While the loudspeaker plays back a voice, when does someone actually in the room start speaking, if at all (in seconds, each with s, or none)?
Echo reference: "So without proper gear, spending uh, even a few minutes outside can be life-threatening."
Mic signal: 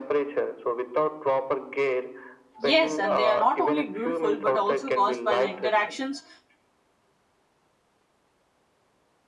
2.6 s